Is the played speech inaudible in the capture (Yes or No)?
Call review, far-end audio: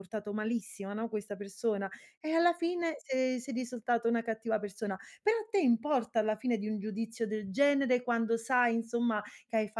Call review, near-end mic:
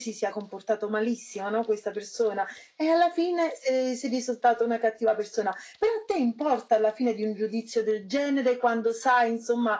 No